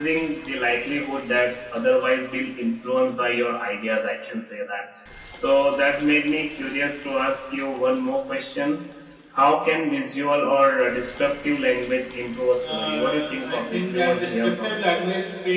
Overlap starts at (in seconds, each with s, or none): 12.6 s